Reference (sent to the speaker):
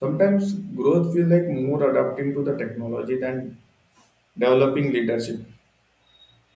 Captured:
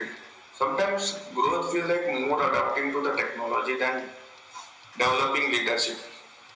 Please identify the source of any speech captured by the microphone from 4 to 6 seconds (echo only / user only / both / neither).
echo only